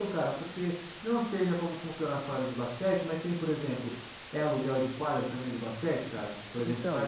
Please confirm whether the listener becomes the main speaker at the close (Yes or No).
Yes